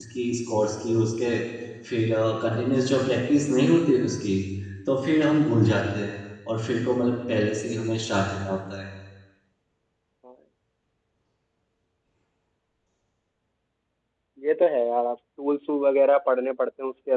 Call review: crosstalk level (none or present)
none